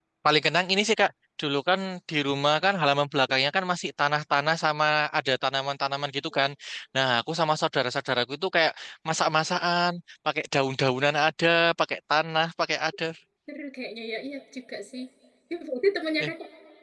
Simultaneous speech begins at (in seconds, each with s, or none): none